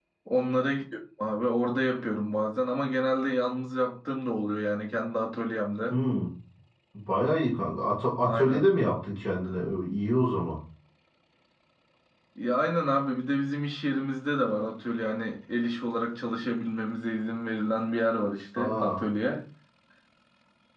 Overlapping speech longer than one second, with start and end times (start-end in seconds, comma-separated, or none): none